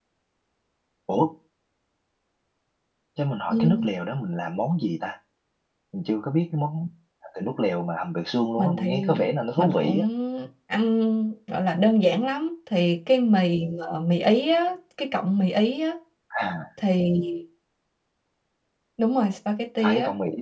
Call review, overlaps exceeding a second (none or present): present